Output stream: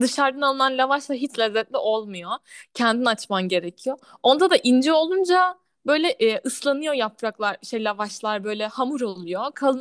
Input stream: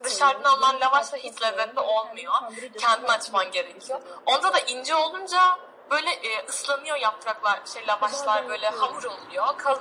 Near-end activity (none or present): present